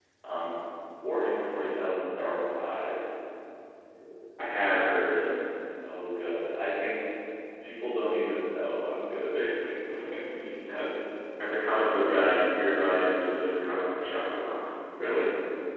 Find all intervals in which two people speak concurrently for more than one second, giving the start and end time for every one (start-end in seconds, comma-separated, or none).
none